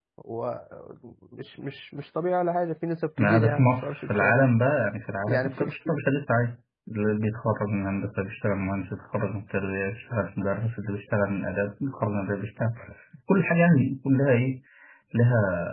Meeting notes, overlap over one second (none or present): present